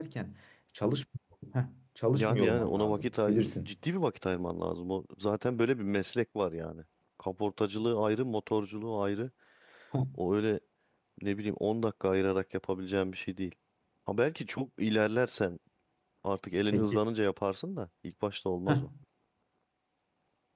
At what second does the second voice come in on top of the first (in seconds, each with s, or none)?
2.1 s